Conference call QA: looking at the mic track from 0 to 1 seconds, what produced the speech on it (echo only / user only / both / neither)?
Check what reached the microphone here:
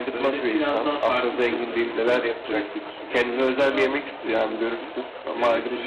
both